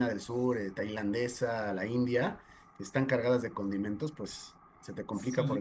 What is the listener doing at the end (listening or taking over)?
taking over